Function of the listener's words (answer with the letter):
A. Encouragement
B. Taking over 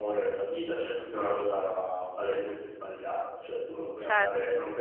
A